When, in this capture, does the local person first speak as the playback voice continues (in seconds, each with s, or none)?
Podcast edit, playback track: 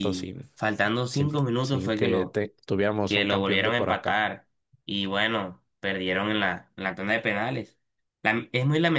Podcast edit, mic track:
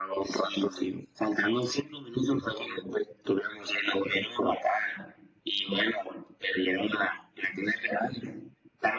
none